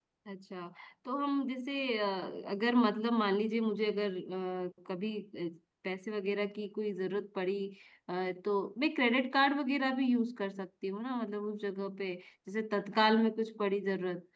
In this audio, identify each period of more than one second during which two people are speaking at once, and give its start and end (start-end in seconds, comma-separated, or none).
none